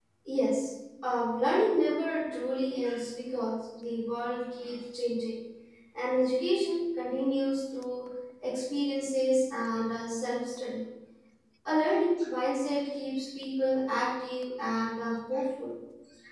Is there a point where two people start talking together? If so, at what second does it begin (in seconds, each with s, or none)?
none